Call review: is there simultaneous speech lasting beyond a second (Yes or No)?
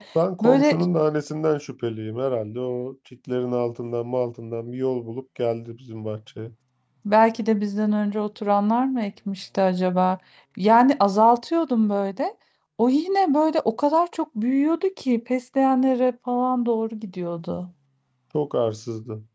No